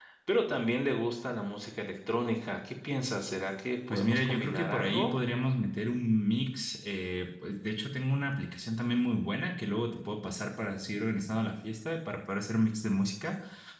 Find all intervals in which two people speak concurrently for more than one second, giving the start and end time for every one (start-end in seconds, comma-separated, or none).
3.9-5.1